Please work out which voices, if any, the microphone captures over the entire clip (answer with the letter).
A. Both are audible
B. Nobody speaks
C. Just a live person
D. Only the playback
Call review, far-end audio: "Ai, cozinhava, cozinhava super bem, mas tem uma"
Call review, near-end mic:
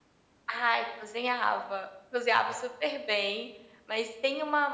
D